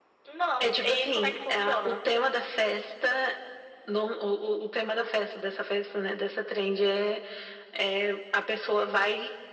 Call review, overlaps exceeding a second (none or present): present